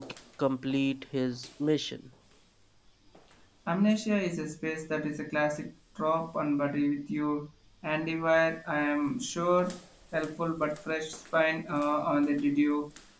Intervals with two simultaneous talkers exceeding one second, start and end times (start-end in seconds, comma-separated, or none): none